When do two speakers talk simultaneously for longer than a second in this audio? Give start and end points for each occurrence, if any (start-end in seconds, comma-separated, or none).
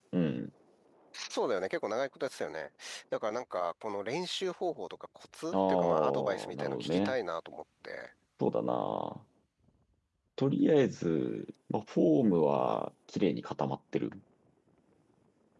5.5-7.2